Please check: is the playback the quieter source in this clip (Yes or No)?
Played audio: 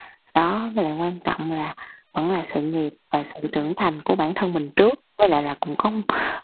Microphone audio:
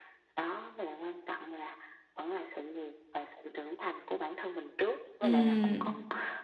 Yes